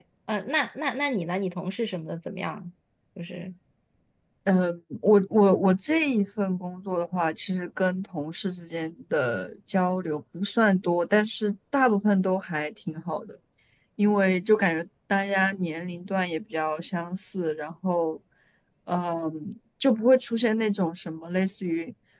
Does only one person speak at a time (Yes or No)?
Yes